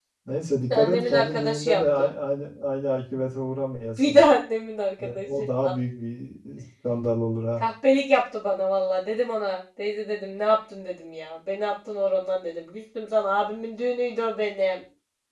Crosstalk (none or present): present